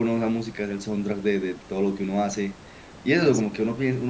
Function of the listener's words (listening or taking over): listening